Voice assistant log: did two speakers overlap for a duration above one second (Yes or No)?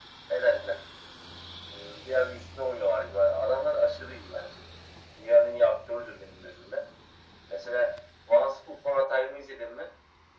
No